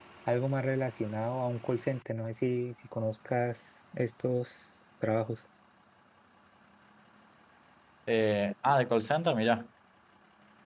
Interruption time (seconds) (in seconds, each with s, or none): none